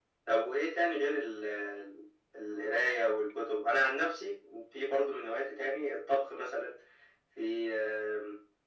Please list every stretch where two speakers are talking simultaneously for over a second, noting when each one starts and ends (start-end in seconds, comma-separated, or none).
none